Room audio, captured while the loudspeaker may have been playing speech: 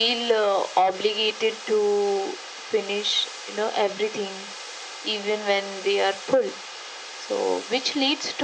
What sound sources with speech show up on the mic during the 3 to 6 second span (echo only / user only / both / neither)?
echo only